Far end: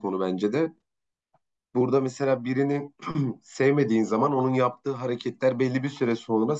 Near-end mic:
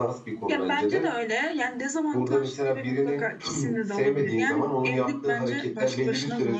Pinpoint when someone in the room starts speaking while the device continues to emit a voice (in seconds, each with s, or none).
0.5 s